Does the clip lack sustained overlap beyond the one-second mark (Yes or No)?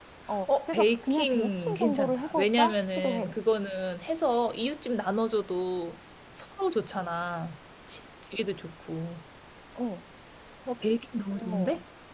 No